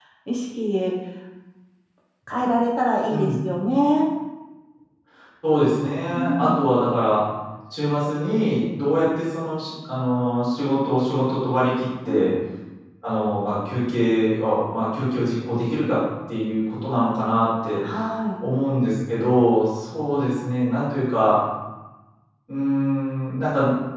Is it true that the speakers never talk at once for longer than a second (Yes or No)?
Yes